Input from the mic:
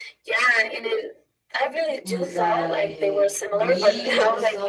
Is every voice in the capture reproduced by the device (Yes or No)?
No